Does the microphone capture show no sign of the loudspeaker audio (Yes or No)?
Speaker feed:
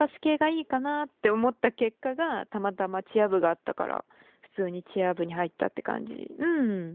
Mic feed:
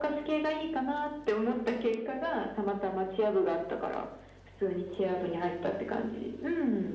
No